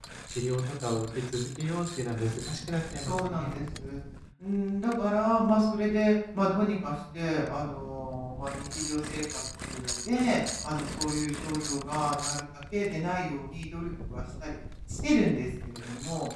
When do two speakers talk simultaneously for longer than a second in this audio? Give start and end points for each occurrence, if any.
none

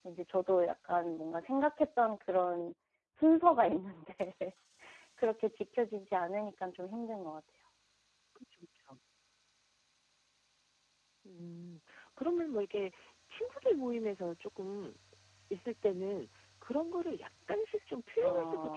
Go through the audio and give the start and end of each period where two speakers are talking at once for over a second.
none

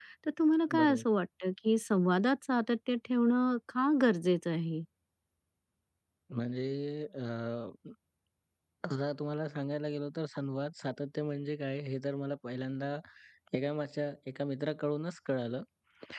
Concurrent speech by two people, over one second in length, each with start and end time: none

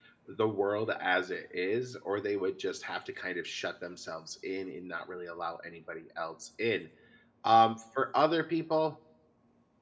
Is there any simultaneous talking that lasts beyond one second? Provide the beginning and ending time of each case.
none

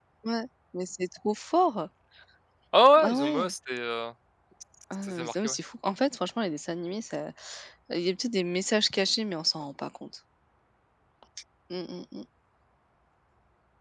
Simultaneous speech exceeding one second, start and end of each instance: none

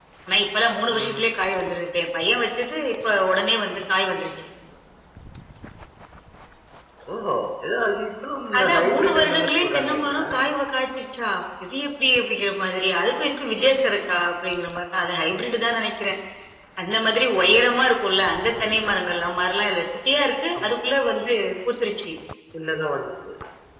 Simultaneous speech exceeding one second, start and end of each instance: 8.6-10.2

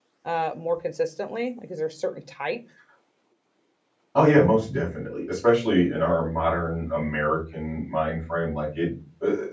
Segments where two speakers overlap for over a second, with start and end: none

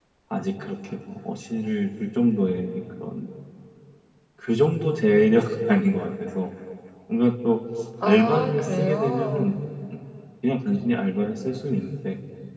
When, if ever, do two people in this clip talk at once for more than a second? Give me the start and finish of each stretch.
8.0-9.5

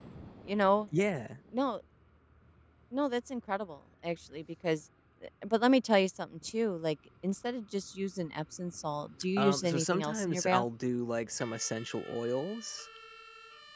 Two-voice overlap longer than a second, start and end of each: 9.4-10.7

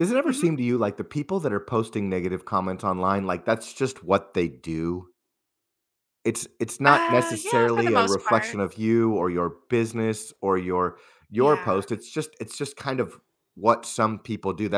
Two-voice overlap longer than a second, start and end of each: 6.9-8.5

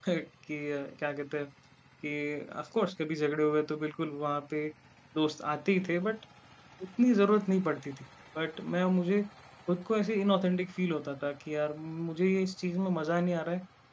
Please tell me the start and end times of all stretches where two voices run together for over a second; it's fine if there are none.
none

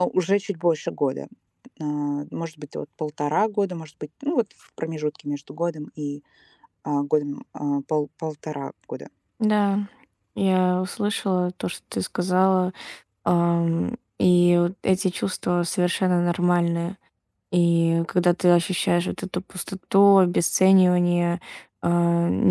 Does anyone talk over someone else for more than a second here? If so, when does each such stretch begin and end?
none

